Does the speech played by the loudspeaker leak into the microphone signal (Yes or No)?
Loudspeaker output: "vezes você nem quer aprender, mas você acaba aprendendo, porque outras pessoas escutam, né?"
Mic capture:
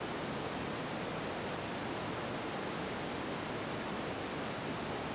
No